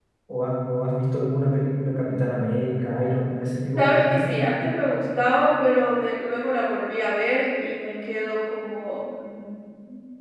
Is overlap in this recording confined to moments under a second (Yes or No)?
Yes